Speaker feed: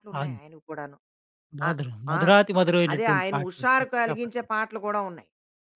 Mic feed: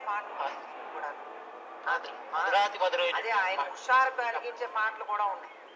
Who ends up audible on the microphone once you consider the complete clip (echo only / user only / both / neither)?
echo only